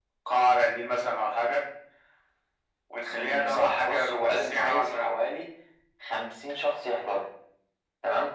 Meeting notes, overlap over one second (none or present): present